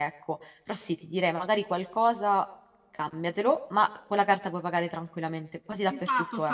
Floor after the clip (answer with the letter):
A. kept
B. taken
B